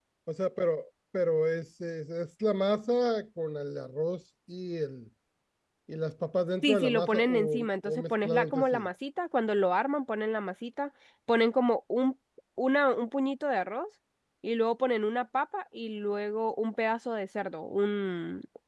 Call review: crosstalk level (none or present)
present